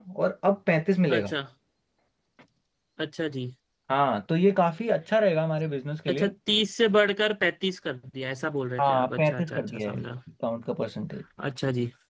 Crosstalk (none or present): present